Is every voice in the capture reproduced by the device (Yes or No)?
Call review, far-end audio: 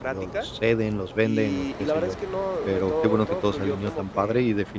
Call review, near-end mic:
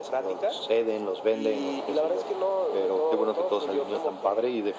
Yes